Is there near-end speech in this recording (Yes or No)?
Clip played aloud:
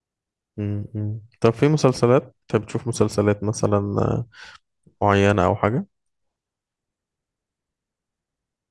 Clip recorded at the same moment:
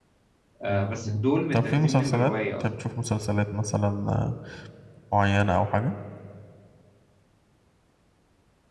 Yes